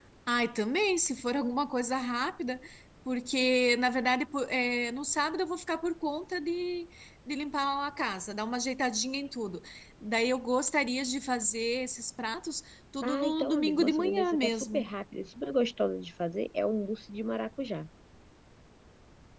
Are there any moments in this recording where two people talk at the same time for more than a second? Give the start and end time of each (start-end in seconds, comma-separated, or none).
13.0-14.9